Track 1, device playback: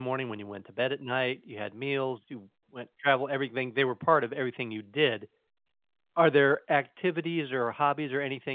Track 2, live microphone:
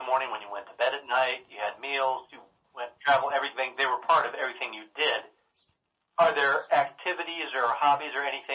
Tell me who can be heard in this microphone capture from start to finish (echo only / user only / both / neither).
echo only